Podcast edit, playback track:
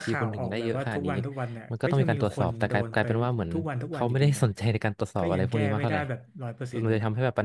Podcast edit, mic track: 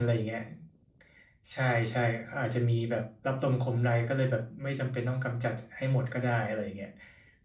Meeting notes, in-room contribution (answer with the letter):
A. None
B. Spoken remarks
B